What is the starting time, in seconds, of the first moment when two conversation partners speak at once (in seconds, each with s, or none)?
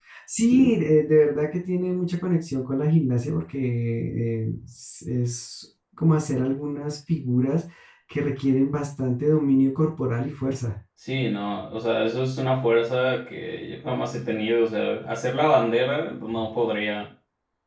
none